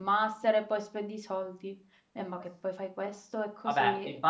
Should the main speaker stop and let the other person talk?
Yes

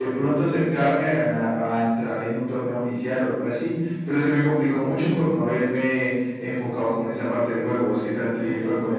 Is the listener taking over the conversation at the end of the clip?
Yes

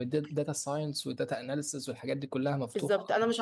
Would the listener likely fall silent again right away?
No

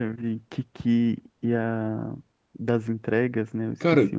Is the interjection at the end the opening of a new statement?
Yes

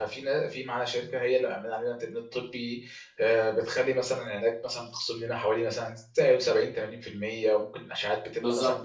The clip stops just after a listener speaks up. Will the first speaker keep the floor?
No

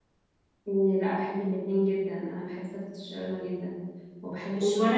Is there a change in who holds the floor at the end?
Yes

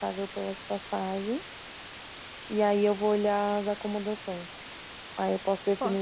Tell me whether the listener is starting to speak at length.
No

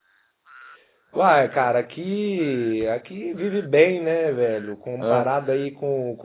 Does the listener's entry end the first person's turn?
No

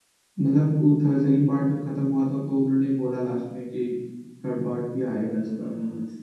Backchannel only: No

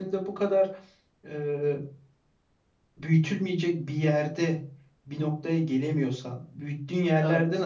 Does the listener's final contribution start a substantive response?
No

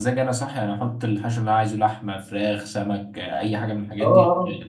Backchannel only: No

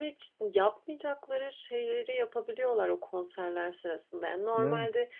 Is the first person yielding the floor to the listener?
No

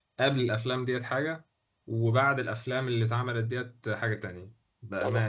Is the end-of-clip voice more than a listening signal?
Yes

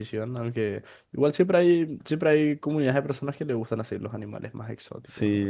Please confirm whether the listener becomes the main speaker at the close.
Yes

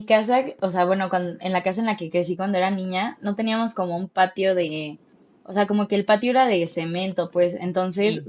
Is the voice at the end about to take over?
No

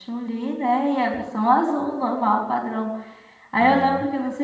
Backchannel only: Yes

